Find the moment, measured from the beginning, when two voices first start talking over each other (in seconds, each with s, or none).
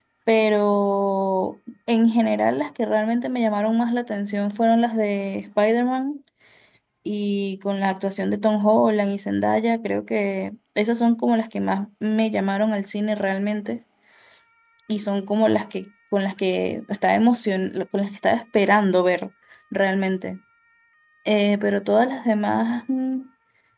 none